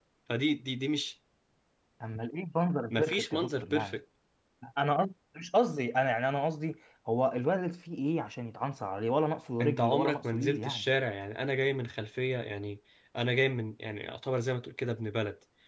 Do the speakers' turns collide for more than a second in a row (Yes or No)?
Yes